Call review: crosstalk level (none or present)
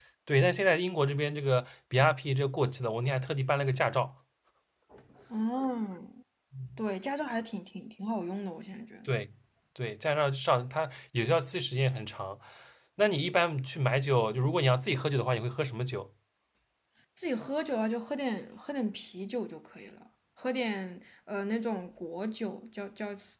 none